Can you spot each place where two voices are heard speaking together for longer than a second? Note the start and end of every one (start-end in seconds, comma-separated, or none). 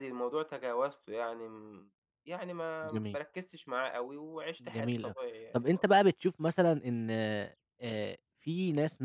none